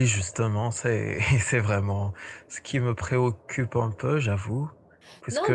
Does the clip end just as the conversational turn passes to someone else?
Yes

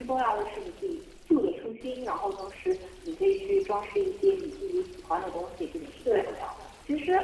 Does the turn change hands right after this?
Yes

